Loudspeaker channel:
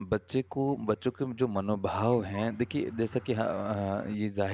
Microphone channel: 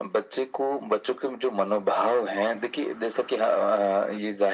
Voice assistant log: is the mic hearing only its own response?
Yes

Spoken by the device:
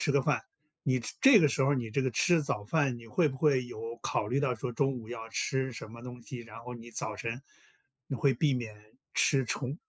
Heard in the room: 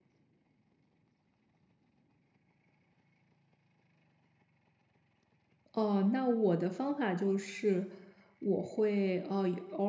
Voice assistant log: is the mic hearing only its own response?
No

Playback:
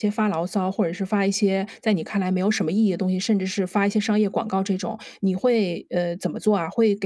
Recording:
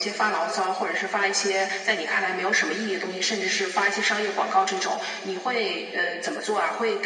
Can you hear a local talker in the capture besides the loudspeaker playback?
No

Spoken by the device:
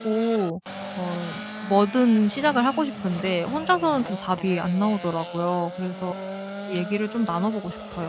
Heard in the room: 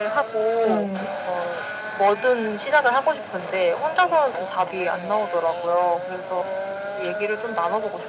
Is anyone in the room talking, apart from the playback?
Yes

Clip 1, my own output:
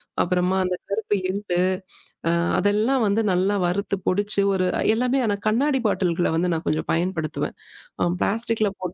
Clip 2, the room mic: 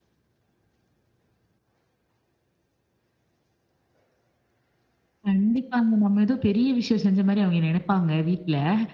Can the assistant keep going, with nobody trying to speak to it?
No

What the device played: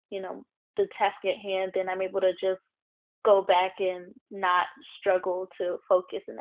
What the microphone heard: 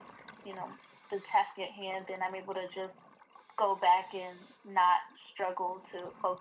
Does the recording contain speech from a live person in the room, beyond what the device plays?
No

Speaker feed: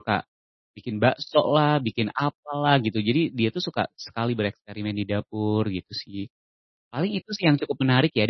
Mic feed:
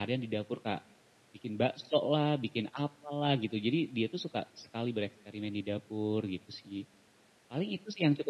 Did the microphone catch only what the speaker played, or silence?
Yes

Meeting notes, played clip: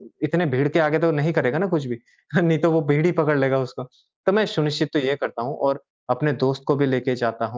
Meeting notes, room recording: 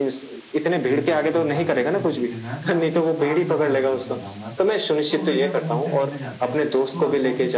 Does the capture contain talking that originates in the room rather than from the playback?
Yes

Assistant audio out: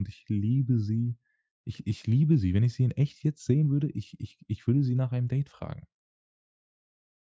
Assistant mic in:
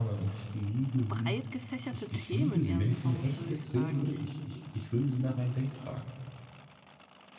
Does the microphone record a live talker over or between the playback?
Yes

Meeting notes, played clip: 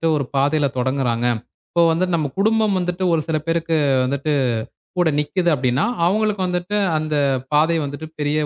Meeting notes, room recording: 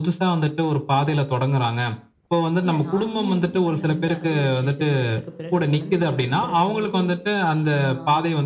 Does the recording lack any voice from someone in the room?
No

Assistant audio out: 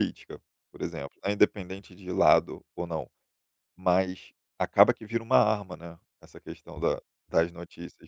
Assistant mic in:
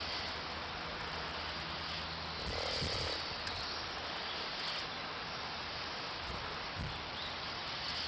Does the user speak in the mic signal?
No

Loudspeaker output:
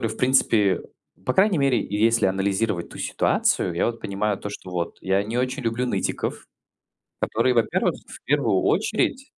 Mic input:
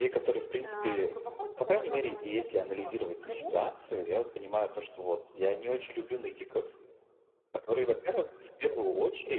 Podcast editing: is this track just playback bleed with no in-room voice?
No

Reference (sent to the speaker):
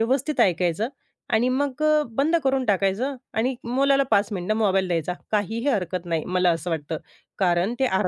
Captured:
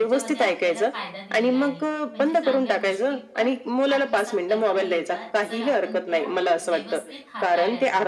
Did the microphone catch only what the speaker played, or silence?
No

